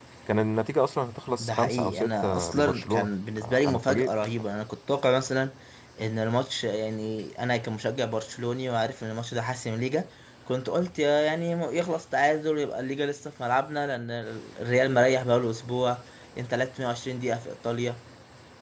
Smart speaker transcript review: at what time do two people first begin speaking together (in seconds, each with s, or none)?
1.4 s